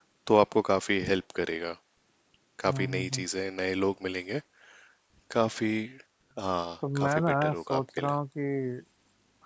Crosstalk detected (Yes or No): Yes